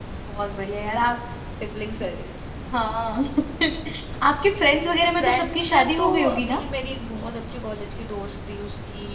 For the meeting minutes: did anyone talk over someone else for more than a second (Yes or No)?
Yes